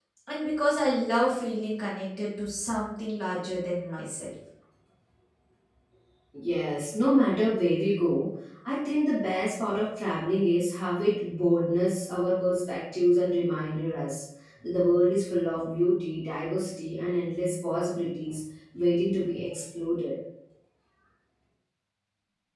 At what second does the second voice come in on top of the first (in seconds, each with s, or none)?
none